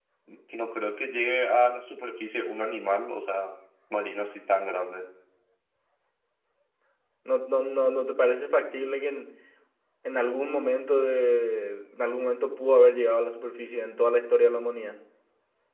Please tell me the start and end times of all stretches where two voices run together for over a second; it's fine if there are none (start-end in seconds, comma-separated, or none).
none